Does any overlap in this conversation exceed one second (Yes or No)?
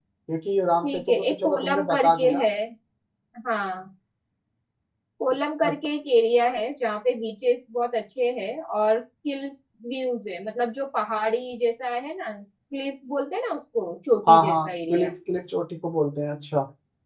Yes